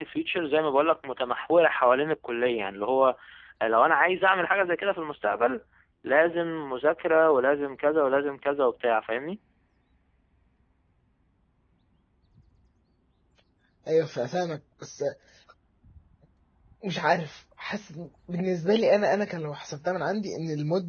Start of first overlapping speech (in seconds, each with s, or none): none